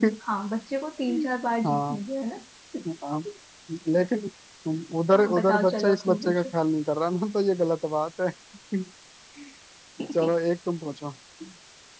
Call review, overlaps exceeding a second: present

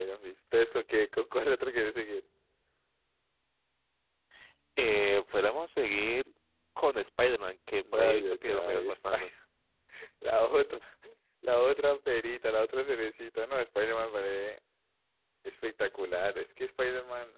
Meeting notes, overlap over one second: present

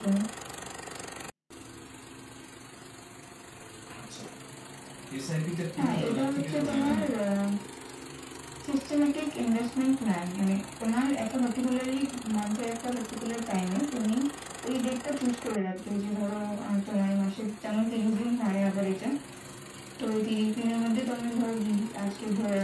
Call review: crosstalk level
present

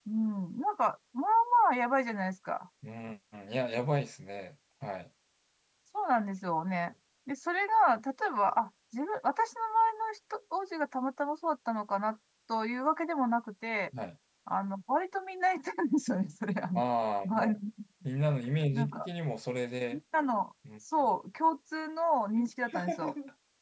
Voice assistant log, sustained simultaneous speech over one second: none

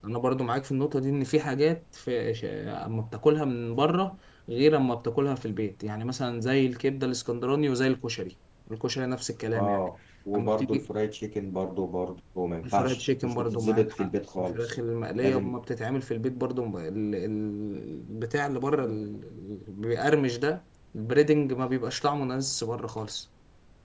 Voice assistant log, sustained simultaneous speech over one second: present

